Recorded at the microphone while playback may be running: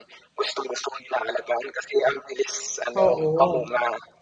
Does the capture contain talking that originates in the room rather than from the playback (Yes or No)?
Yes